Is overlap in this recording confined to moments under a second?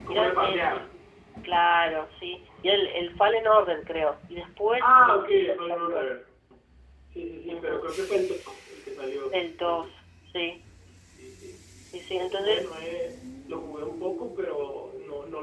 No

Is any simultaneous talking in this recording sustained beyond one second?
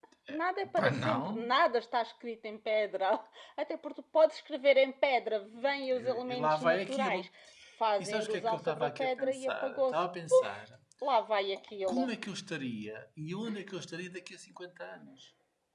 Yes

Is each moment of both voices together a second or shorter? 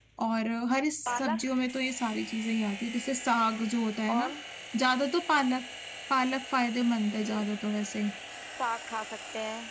Yes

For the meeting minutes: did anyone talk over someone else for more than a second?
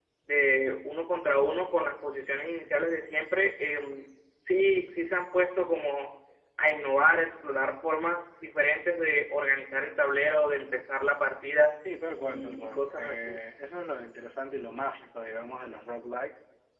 Yes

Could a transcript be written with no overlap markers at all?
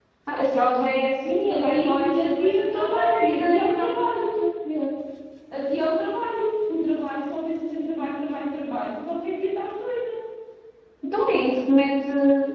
No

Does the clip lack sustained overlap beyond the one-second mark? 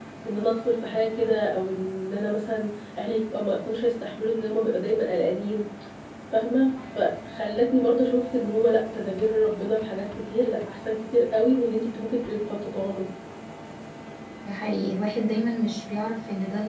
Yes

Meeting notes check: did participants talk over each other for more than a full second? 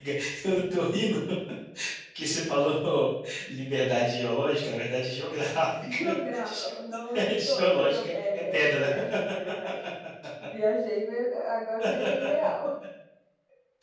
Yes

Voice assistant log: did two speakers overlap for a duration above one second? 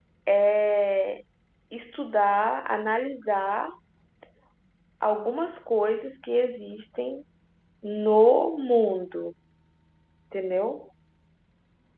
No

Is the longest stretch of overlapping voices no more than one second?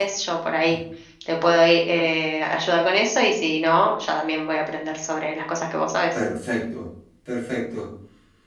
Yes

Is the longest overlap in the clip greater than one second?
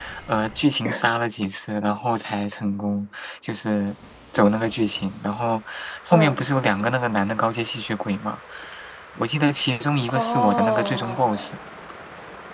Yes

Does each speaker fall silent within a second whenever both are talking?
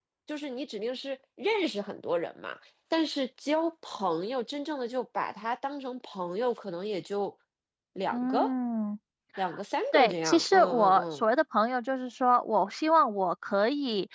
No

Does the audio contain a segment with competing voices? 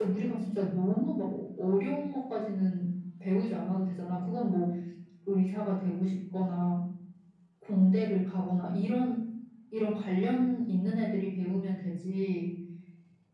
No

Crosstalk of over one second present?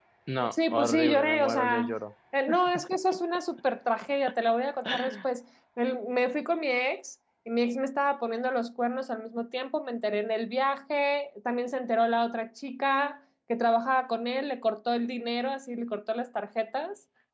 Yes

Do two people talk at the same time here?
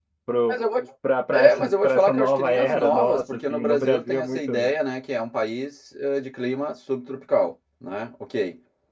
Yes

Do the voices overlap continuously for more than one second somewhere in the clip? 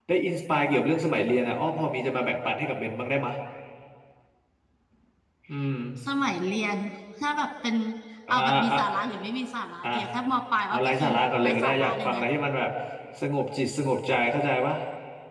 Yes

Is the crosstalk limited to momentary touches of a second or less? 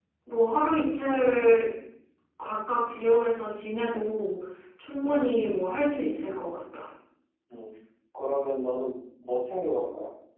Yes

